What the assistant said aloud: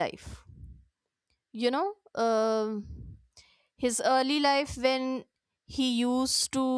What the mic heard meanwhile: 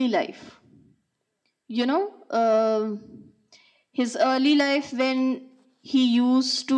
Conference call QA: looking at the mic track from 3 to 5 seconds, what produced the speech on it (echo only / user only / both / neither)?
echo only